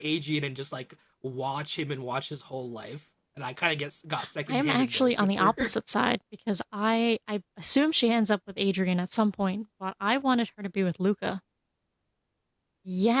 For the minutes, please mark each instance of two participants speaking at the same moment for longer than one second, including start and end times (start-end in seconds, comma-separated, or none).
4.5-5.7